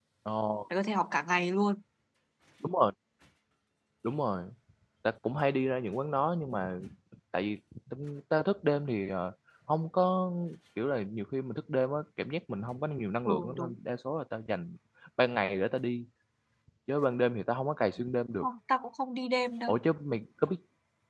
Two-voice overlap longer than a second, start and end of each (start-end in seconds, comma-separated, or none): none